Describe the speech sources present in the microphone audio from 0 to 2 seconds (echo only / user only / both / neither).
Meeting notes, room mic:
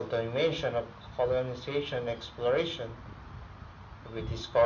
echo only